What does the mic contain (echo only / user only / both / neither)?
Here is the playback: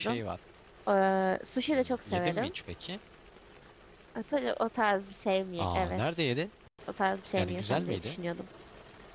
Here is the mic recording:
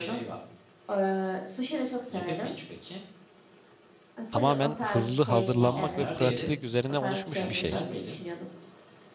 both